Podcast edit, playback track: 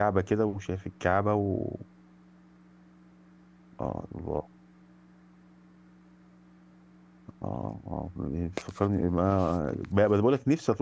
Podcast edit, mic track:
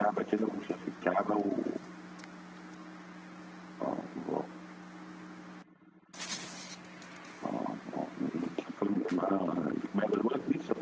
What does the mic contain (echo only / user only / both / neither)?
echo only